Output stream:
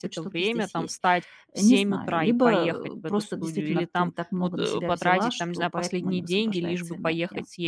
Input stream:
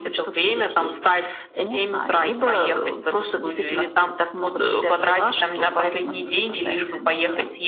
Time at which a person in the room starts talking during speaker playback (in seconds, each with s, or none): none